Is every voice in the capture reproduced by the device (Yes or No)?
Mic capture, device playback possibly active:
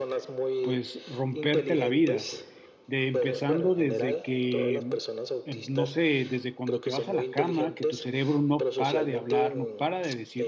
No